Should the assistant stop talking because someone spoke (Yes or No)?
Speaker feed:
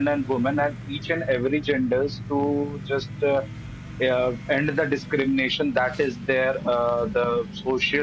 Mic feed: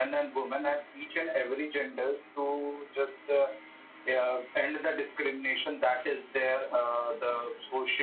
No